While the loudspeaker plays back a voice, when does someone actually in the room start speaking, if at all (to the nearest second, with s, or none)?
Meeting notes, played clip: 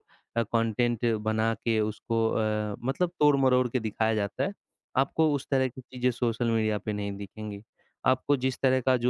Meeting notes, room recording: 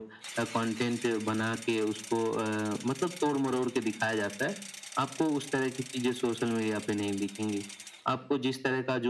none